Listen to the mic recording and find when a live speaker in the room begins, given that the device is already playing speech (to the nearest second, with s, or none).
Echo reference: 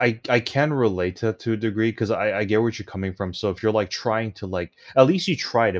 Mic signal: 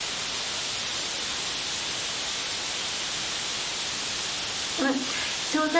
5 s